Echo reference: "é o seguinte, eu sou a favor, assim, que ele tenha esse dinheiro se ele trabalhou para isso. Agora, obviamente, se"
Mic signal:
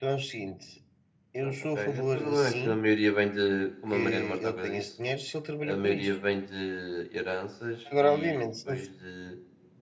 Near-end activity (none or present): present